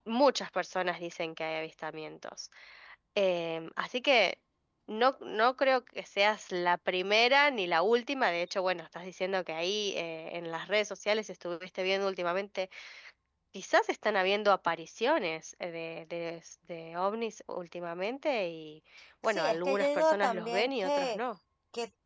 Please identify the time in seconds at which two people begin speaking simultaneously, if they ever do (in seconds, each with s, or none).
19.3 s